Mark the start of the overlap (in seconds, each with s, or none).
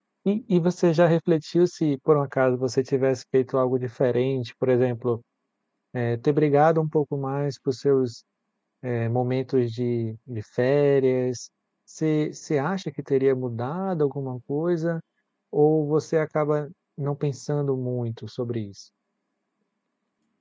none